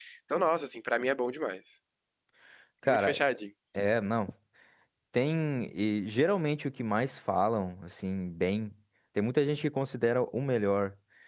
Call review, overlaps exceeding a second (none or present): none